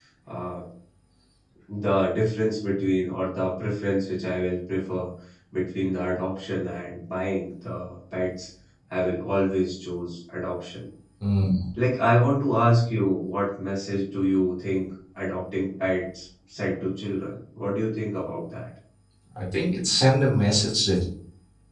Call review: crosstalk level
none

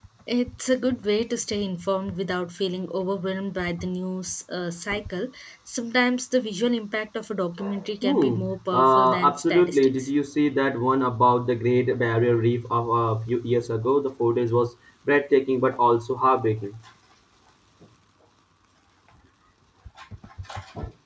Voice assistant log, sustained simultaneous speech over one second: present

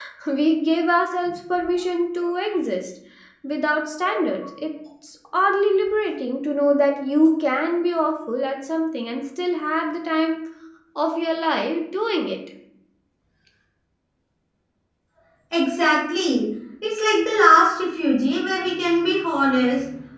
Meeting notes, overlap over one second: none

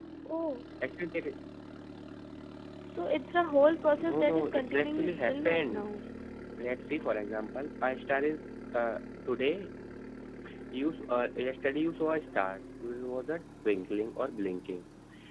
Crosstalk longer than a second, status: present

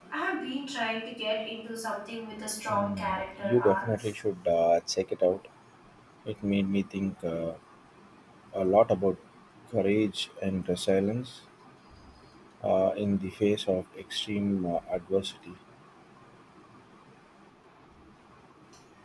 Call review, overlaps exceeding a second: present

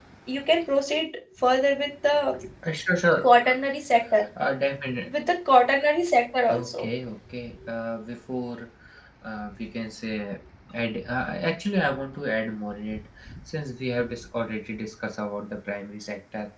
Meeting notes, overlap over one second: none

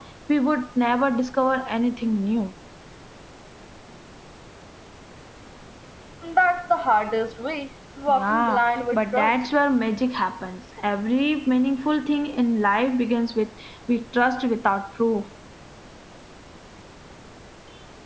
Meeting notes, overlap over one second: present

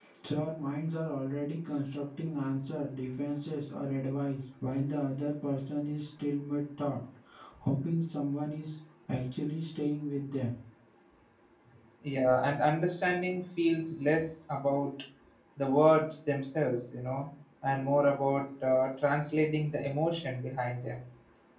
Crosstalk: none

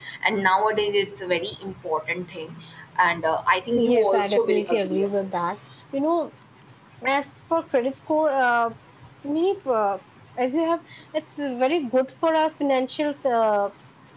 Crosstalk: present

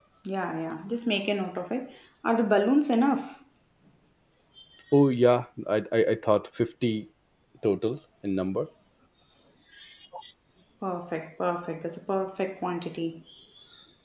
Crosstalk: none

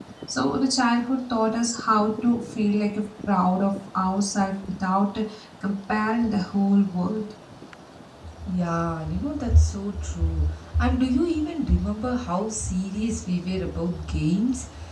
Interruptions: none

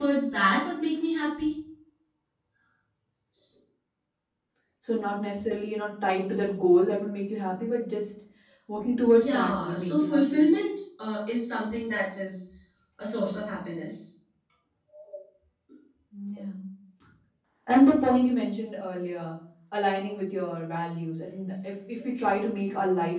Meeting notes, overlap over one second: present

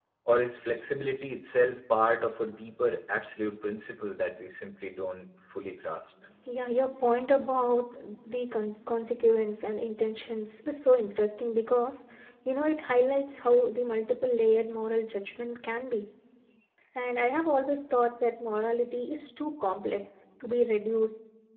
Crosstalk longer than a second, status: none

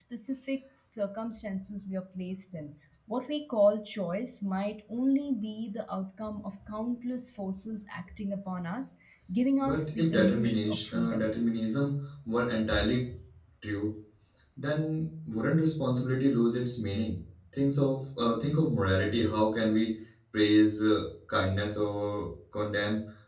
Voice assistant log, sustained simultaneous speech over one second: present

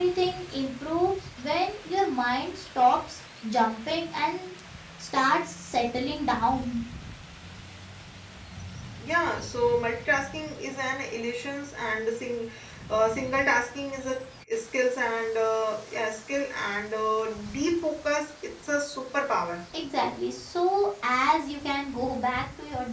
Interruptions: none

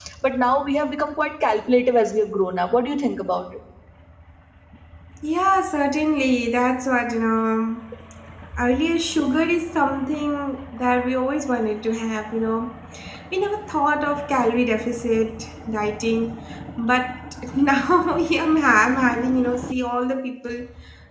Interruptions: none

